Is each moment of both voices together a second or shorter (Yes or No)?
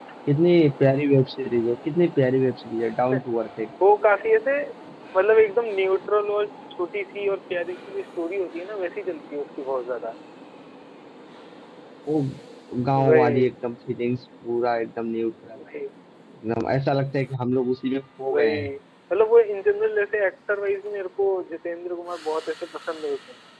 Yes